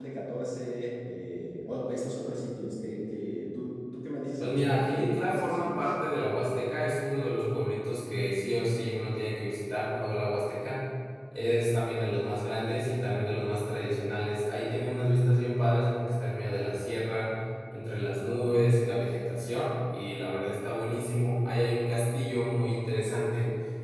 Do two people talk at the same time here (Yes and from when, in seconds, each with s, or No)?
Yes, from 4.4 s